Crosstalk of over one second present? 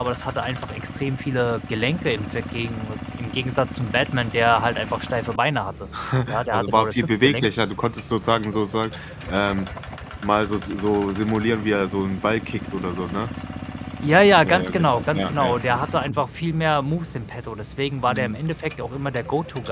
Yes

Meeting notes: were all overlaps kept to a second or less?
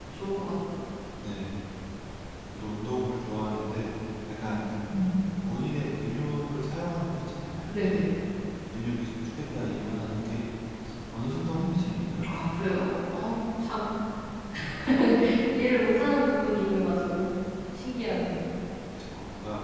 Yes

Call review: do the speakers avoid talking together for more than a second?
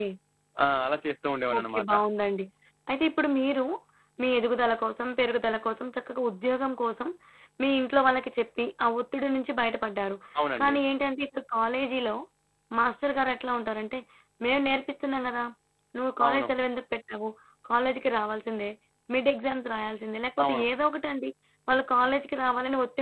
Yes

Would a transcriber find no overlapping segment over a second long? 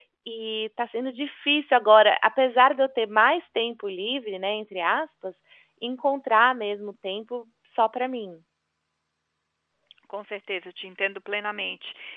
Yes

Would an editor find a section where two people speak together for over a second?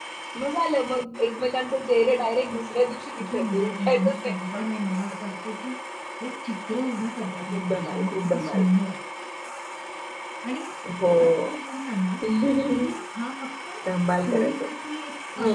Yes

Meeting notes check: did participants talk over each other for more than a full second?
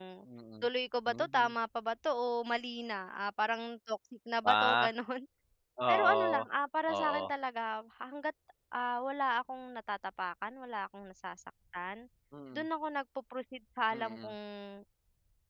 No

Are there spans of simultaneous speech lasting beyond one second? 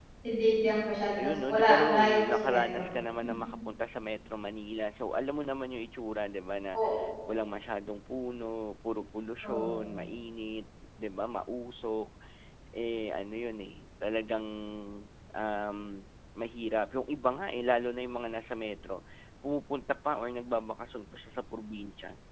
Yes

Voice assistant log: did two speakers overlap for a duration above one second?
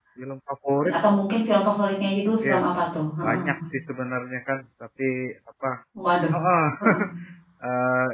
No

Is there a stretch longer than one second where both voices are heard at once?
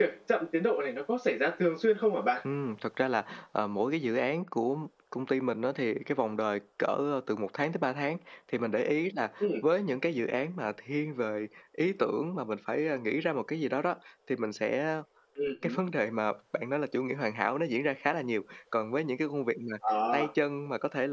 No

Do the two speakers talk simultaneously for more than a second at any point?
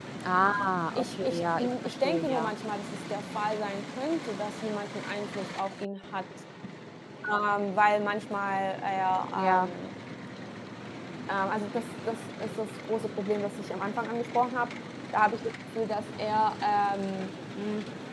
Yes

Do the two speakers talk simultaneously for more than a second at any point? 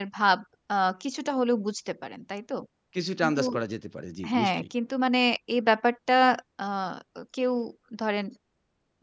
No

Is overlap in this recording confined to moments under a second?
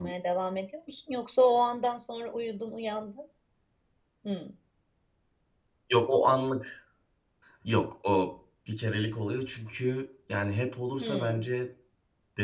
Yes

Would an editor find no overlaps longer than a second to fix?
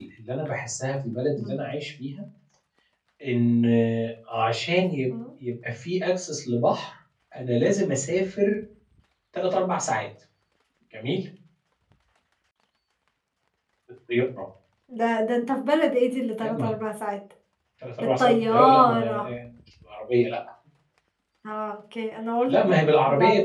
No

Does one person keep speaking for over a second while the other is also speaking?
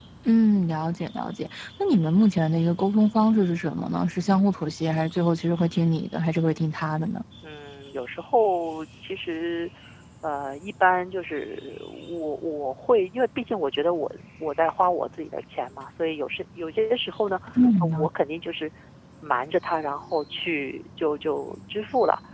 No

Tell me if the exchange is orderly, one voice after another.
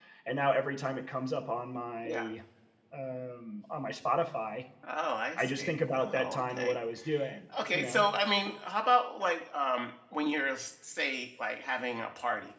No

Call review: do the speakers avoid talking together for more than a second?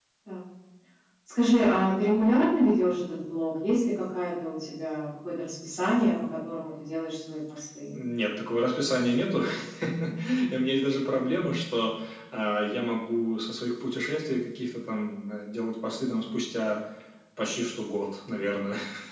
Yes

